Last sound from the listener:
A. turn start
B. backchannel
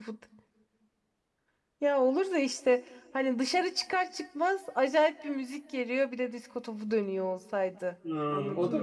A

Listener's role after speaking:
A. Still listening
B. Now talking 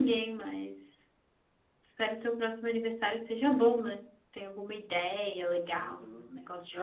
B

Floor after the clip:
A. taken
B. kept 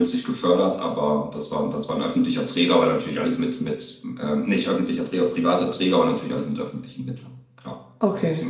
B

